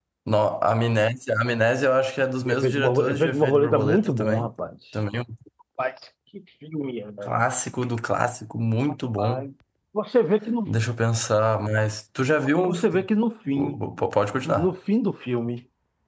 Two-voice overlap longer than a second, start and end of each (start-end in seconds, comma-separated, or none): 2.5-4.5